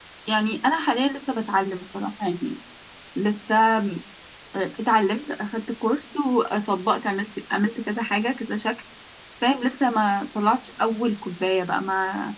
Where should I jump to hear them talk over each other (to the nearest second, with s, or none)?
none